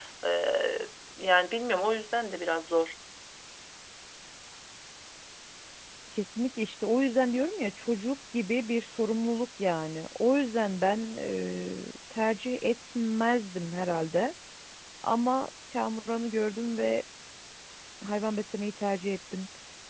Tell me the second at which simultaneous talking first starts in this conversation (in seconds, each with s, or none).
none